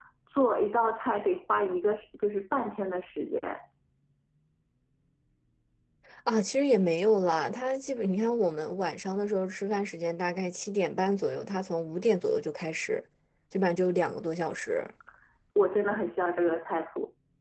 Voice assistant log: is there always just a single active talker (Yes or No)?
Yes